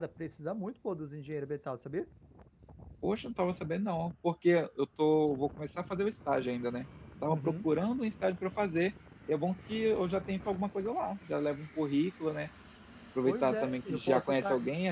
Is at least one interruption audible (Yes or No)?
Yes